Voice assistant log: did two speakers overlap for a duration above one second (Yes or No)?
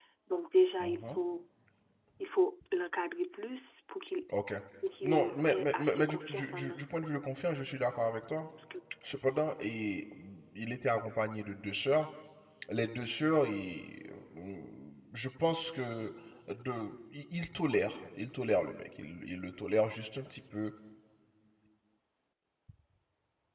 Yes